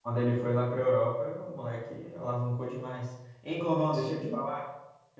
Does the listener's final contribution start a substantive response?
No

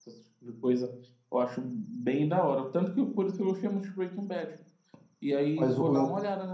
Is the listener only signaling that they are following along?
No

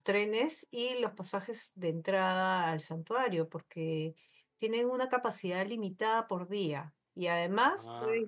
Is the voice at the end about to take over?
No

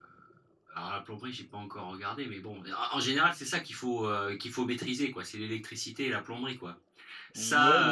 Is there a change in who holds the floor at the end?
Yes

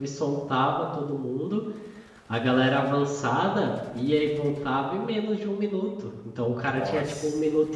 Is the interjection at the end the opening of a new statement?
No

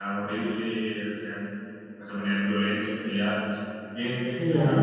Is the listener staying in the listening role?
No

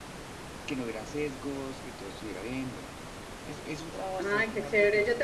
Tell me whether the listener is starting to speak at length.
Yes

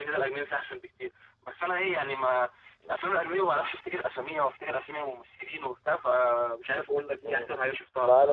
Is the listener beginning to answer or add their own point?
Yes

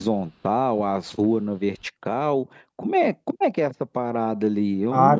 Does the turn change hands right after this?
Yes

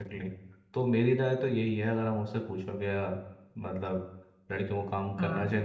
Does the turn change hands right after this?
No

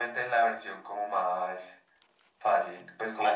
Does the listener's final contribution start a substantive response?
No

